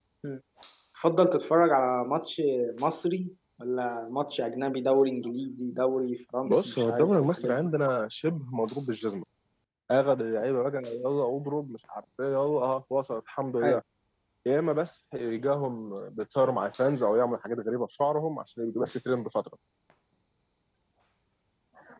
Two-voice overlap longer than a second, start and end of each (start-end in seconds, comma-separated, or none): 6.5-7.7